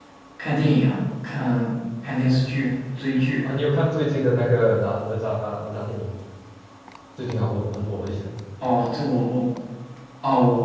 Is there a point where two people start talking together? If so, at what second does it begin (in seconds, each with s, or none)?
none